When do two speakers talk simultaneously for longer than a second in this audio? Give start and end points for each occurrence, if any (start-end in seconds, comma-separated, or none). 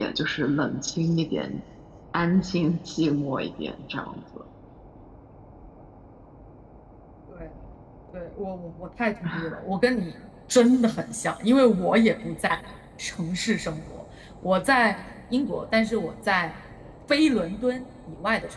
none